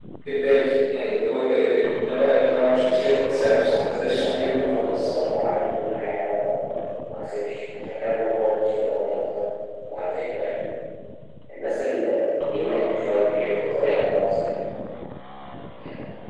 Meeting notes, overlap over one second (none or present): present